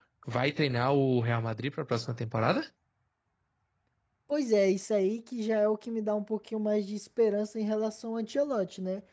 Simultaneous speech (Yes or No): No